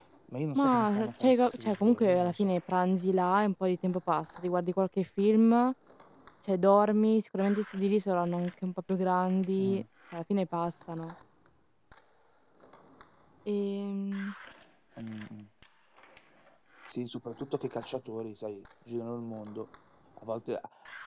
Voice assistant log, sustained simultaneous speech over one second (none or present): present